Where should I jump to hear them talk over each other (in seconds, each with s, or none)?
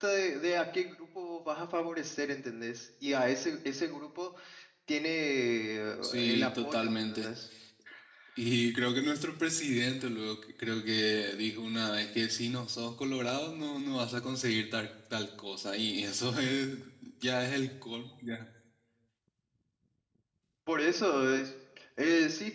6.0 s